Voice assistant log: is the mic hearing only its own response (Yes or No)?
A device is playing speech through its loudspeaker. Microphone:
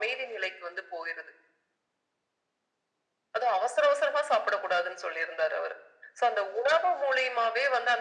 Yes